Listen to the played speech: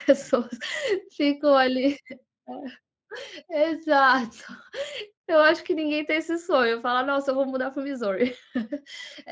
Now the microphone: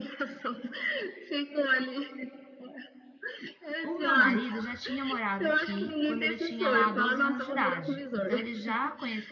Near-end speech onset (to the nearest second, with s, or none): 3 s